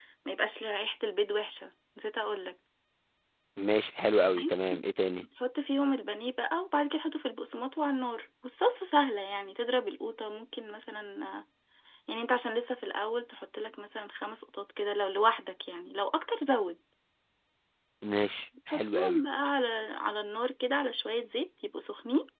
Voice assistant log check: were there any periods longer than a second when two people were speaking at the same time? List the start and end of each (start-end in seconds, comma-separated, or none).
none